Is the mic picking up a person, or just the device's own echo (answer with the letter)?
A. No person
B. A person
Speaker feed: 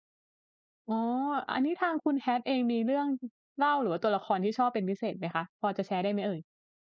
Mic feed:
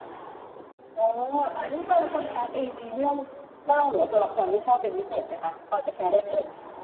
A